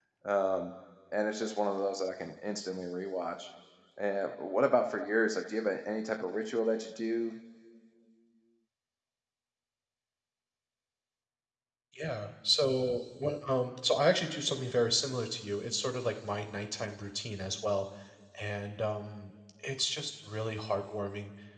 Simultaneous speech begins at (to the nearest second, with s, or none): none